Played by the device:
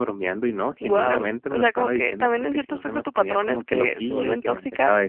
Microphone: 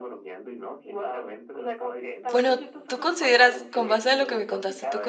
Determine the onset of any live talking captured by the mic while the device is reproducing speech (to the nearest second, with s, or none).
2 s